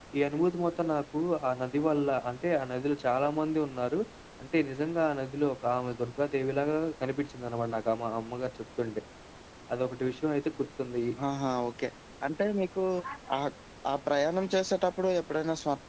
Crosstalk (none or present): none